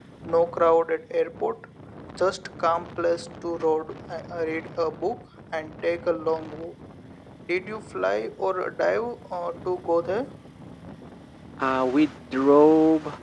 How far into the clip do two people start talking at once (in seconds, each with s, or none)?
none